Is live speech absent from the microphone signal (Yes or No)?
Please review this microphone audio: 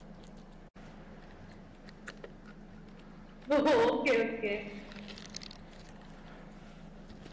No